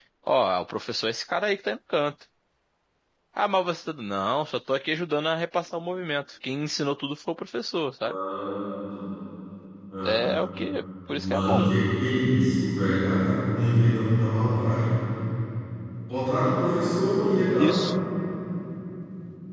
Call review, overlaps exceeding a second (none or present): none